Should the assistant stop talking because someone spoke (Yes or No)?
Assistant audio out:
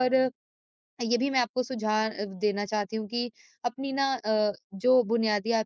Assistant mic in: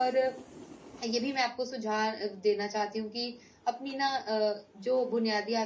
No